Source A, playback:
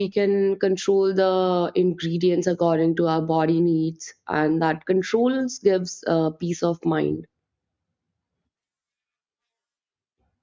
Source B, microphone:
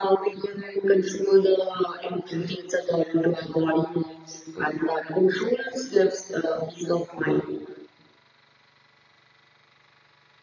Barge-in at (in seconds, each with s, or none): none